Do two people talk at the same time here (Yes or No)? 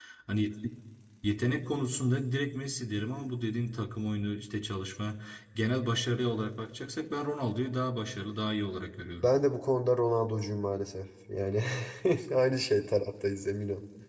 No